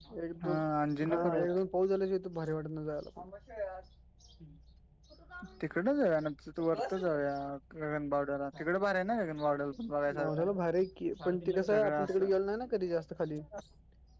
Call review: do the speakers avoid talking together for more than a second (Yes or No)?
Yes